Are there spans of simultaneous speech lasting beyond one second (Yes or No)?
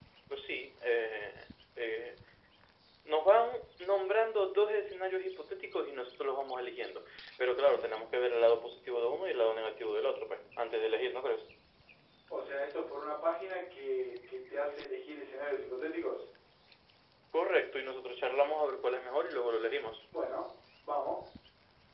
No